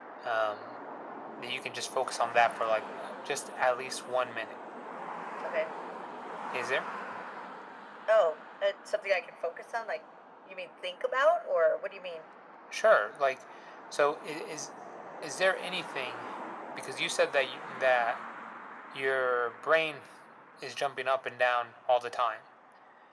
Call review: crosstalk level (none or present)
none